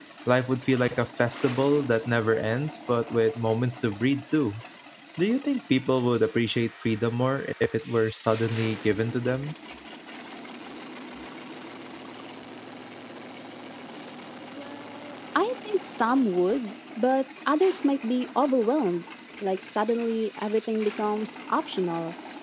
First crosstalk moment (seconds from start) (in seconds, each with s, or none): none